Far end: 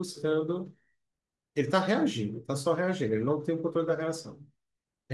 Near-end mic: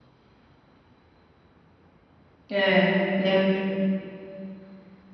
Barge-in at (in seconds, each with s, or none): 2.5 s